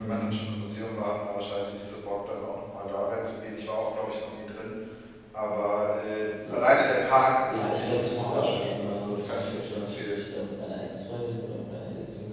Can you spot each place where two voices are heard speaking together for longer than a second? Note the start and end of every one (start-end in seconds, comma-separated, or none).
7.5-10.2